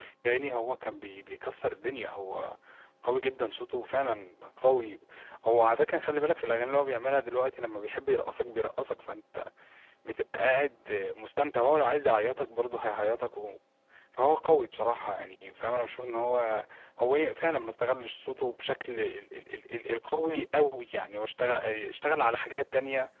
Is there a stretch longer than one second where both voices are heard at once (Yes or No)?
No